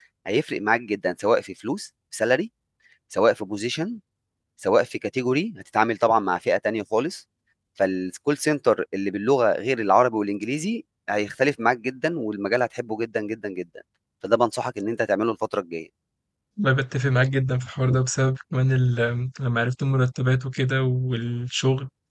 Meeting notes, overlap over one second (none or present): none